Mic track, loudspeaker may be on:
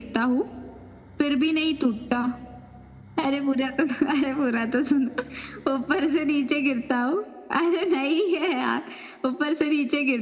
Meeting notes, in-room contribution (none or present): none